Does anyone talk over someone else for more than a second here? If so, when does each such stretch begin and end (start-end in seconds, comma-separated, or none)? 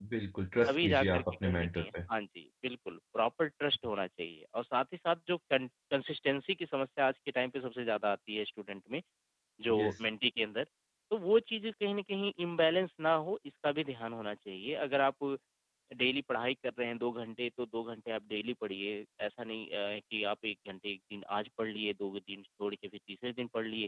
0.7-1.9